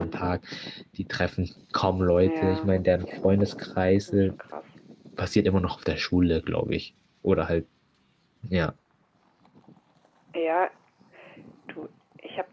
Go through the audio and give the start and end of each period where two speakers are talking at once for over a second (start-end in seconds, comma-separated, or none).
none